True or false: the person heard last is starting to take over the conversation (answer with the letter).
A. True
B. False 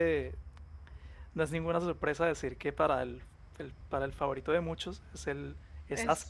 A